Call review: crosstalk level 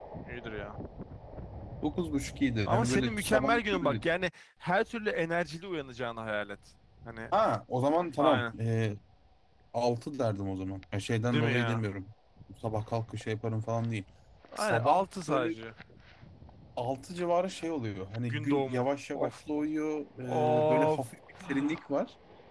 present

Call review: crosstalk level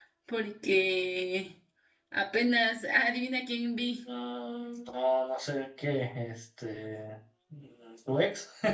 none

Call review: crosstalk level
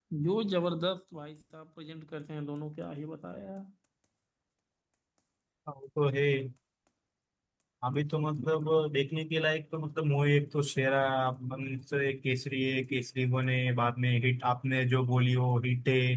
none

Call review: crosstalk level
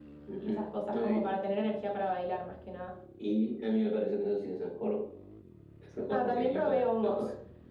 present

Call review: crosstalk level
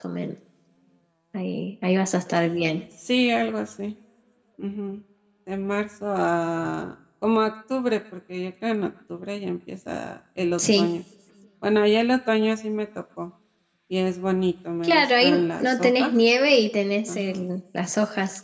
present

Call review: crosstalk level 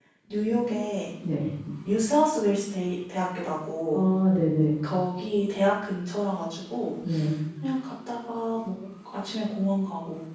none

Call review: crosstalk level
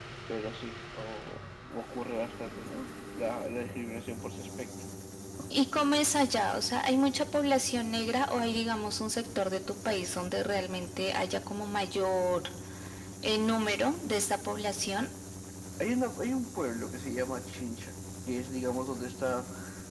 none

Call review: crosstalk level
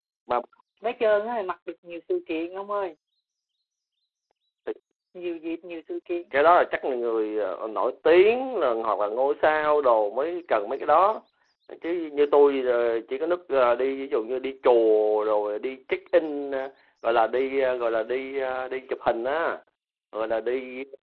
none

